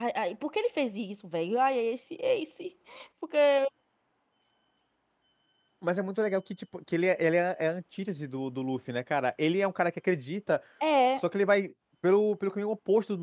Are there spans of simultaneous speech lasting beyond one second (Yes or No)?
No